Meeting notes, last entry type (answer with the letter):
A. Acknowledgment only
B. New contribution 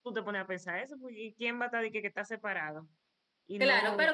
B